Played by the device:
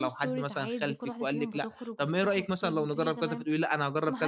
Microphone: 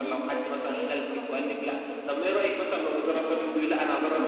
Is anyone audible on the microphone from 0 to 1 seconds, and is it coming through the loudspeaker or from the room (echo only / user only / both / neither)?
echo only